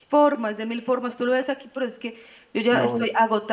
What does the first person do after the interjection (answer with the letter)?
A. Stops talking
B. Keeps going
B